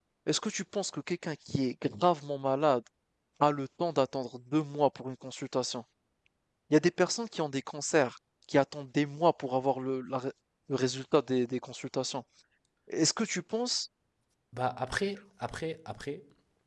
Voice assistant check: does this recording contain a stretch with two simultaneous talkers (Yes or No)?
No